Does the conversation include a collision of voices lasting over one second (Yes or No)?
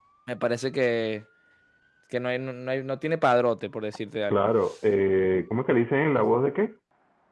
No